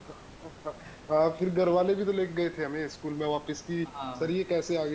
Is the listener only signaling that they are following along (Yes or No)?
Yes